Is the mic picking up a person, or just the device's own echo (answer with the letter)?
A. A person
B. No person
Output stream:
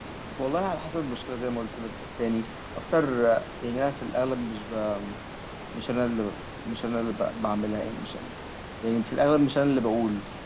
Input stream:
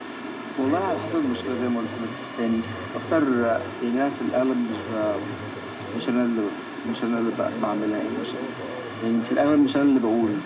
A